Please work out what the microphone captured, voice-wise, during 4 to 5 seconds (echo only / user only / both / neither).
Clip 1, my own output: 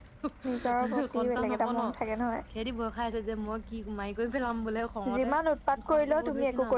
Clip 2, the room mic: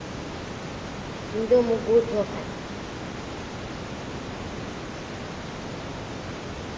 neither